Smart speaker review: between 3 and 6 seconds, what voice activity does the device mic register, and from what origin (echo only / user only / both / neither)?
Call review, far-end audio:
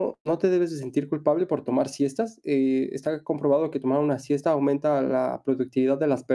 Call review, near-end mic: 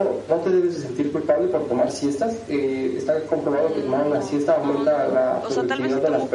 both